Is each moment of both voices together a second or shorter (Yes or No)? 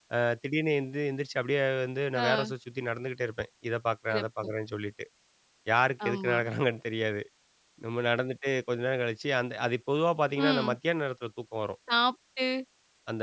Yes